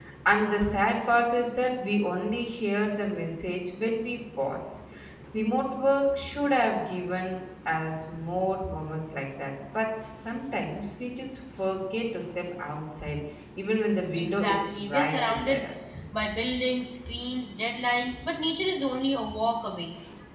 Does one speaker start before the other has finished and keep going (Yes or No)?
Yes